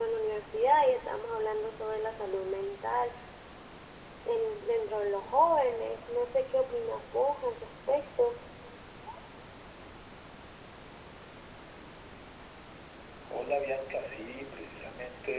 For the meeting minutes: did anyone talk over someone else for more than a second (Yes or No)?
No